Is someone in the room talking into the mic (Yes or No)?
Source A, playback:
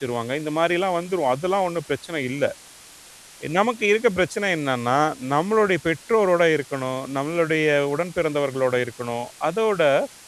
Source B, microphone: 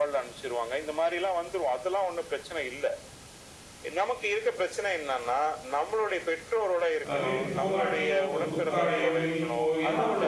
Yes